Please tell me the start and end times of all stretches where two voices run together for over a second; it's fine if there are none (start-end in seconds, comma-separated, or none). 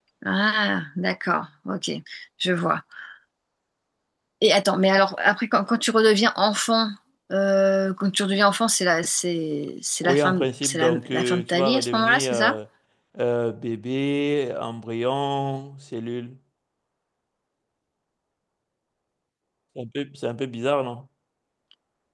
10.0-12.6